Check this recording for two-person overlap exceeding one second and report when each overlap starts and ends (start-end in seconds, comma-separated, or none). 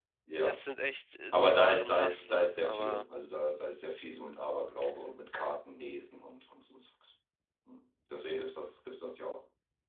1.3-3.0